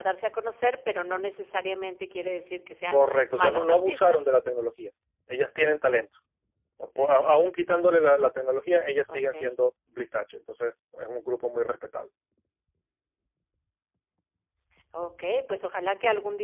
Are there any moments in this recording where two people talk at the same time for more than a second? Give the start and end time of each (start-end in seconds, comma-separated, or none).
2.9-4.2